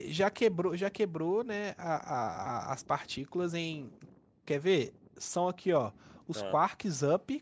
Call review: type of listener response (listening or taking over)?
listening